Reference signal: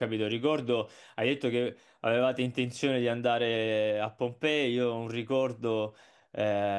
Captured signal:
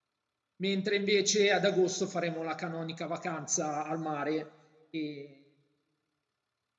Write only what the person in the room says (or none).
Mentre invece ad agosto faremo la canonica vacanza al mare e